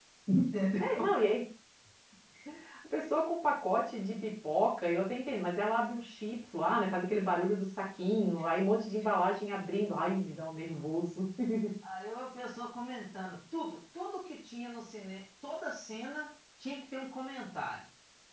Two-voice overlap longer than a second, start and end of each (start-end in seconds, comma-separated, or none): none